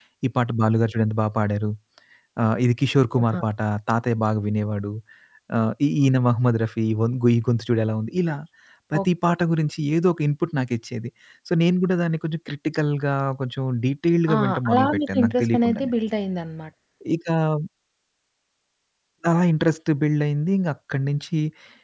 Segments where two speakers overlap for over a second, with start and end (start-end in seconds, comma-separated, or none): 14.3-15.9